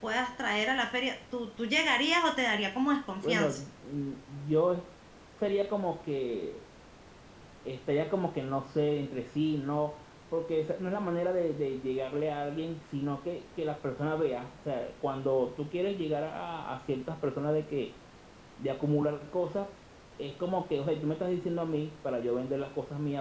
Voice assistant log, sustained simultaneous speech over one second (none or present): none